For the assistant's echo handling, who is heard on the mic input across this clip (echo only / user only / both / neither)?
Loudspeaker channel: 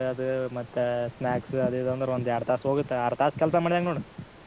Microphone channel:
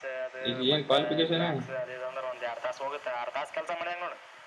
both